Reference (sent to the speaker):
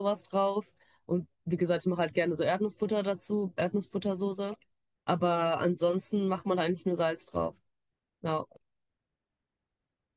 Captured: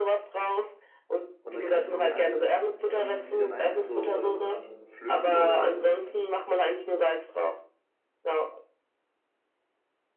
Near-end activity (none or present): present